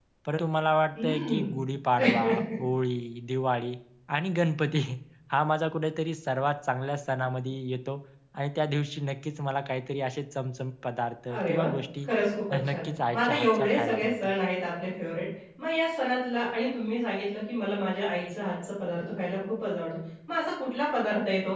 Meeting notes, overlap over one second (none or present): present